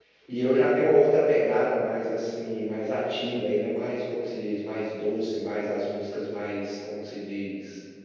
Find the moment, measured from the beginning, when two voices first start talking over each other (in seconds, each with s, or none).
none